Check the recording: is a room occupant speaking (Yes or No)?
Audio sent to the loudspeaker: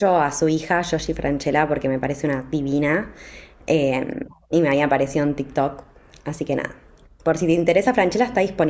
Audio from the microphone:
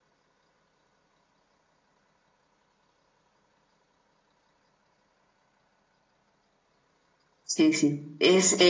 Yes